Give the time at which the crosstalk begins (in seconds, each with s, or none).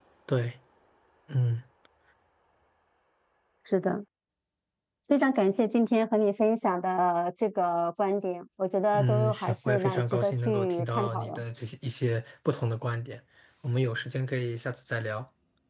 8.9 s